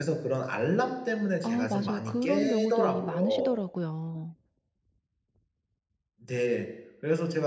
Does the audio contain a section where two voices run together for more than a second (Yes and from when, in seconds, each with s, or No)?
Yes, from 1.4 s